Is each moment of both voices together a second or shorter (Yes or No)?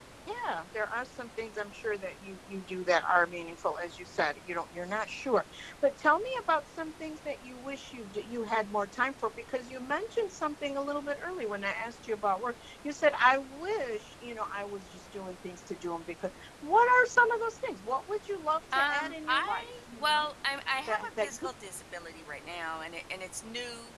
No